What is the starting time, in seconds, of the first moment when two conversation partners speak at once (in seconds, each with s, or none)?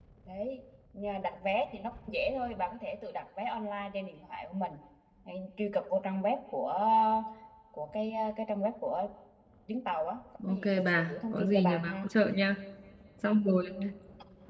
10.5 s